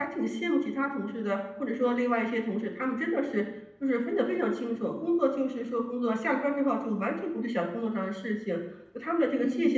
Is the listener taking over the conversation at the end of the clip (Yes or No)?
No